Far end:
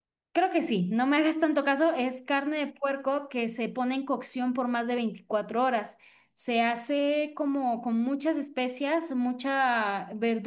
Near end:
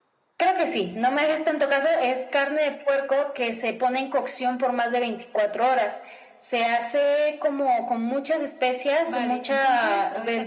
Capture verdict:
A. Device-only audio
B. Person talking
B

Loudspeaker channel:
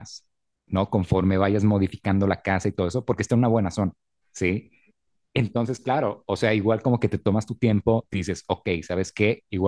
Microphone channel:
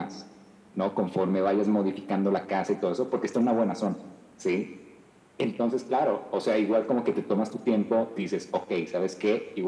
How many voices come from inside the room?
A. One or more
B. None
B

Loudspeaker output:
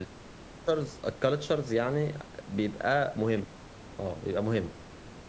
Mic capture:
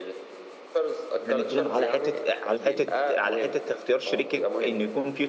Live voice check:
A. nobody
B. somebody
B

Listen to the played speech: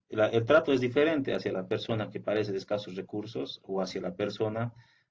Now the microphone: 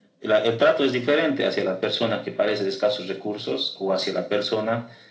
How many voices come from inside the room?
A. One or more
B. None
B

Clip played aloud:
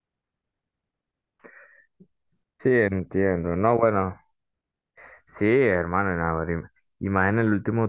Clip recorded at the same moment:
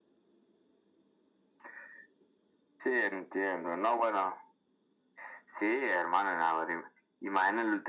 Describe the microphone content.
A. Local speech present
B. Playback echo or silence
B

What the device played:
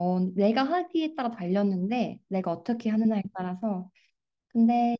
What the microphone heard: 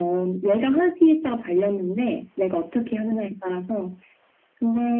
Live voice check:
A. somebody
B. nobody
B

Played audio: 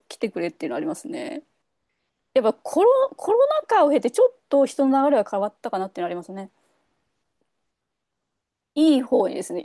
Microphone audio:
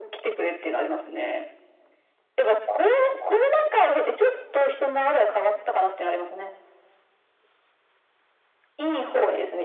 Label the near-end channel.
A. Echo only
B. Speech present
A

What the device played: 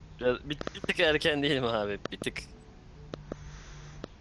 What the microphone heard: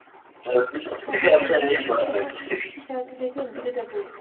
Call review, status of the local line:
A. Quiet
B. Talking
B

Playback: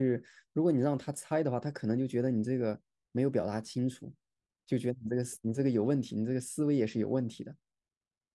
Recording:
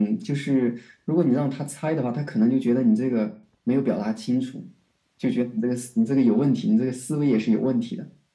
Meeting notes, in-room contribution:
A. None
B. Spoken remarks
A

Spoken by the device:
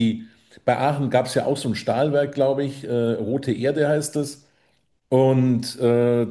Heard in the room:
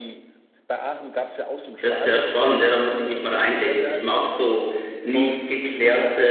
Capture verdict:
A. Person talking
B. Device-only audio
A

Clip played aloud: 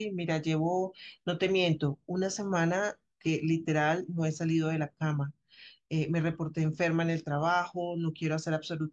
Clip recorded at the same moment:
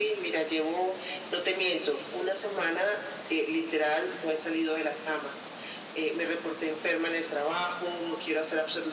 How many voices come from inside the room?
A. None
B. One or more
A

